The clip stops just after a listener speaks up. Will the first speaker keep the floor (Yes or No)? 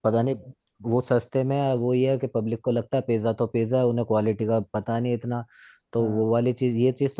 Yes